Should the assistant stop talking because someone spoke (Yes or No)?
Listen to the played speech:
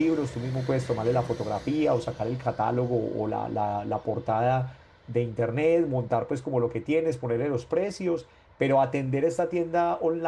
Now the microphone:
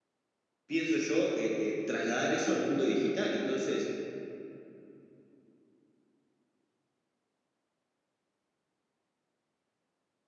Yes